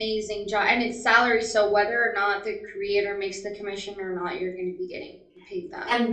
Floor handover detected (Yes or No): Yes